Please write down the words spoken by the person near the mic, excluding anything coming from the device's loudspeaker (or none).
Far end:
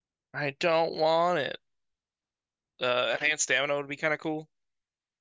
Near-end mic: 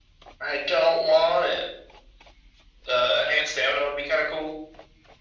none